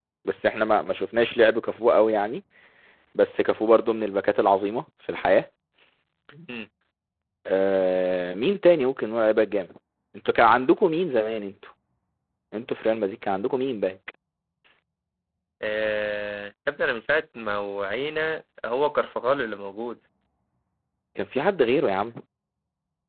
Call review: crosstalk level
none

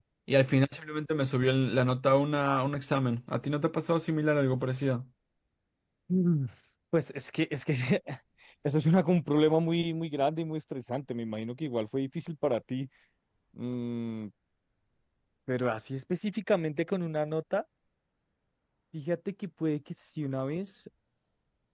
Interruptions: none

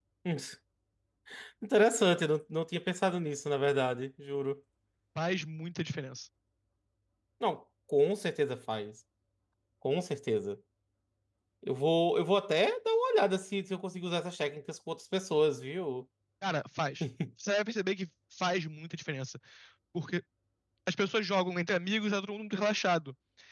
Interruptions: none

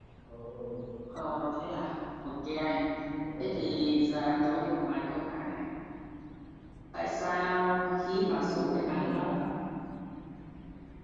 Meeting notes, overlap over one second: present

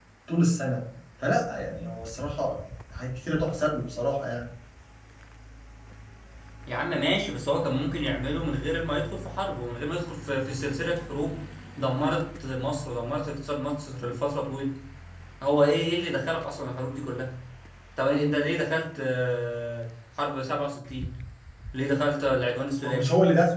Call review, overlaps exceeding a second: none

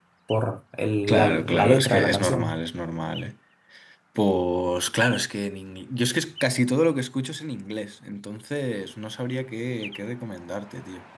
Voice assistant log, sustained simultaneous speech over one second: present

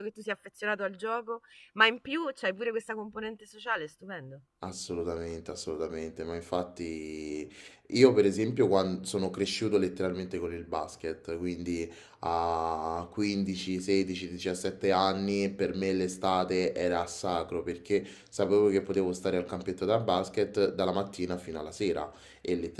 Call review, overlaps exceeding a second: none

